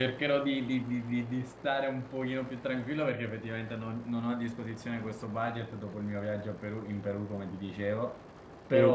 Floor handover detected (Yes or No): No